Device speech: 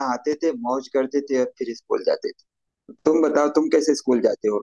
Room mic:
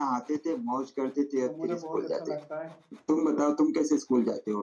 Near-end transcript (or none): तो मुझे बहुत अच्छा लगता है